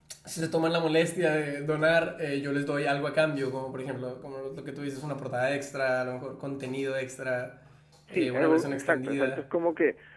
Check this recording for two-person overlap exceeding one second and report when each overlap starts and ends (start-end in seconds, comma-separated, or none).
8.1-9.4